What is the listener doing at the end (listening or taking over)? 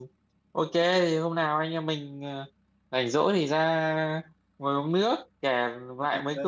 listening